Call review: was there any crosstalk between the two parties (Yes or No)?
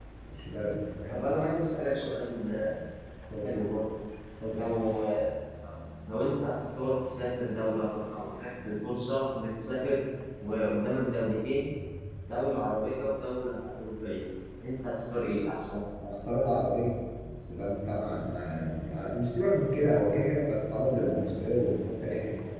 No